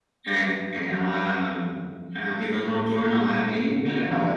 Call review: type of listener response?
taking over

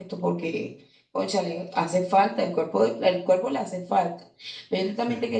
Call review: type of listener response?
listening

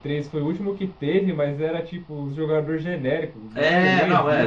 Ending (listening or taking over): taking over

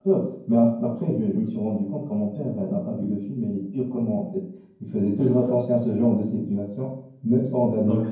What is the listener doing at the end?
taking over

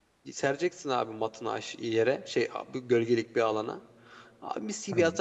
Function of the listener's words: listening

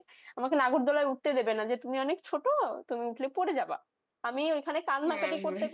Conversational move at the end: listening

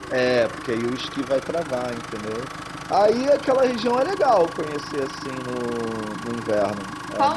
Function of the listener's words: taking over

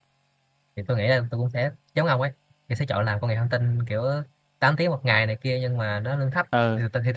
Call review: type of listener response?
listening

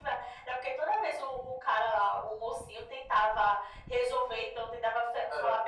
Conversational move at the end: listening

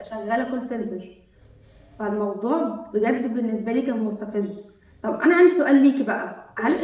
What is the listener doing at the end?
listening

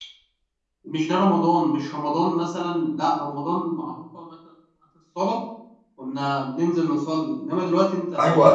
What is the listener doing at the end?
taking over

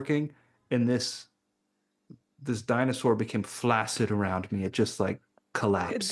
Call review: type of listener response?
listening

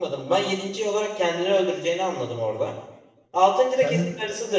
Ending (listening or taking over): listening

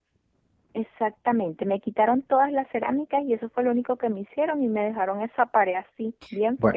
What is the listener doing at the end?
taking over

